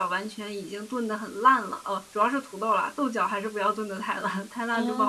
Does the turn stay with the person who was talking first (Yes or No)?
No